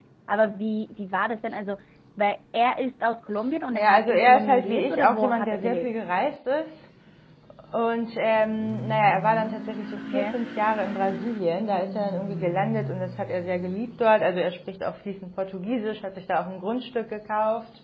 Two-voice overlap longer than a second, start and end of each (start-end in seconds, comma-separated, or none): 3.7-5.9